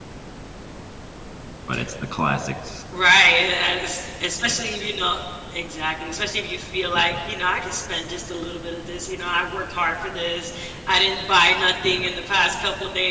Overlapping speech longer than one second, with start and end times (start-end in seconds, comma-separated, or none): none